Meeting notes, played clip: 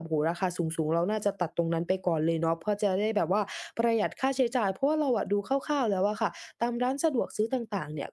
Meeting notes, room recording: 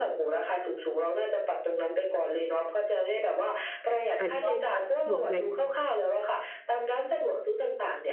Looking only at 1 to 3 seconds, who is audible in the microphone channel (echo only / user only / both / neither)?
echo only